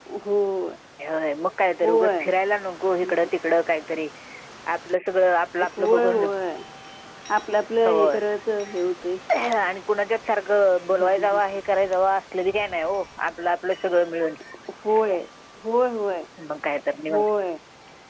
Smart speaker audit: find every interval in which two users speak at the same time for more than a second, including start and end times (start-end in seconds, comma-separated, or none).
none